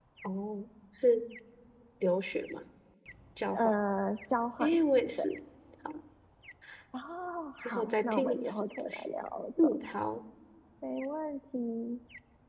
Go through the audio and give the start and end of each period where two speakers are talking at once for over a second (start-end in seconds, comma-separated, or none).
7.6-9.1